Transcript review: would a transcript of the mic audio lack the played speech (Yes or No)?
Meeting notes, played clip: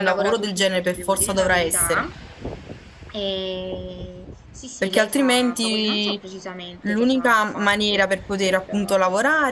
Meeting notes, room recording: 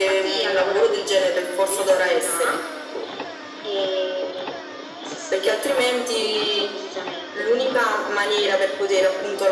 No